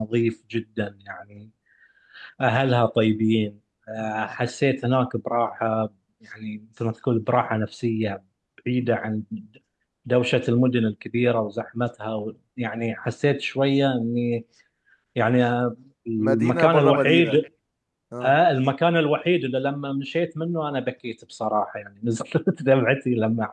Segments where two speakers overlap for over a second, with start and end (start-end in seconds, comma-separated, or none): 16.2-17.4